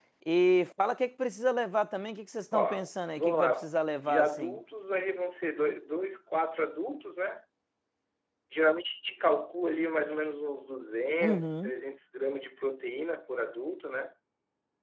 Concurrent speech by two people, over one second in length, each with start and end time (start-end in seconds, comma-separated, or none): 2.5-4.6